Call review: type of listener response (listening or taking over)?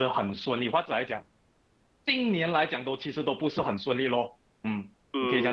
taking over